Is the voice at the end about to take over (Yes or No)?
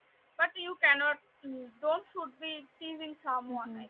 Yes